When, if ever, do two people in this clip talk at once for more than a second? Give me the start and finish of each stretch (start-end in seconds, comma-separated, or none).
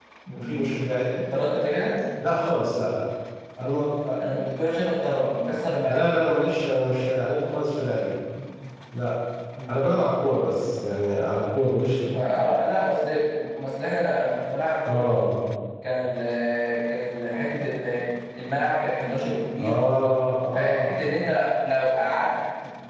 none